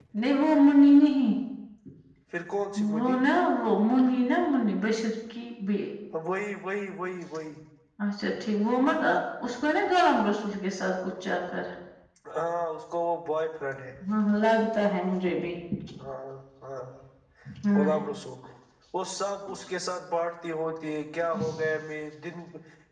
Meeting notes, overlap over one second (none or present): none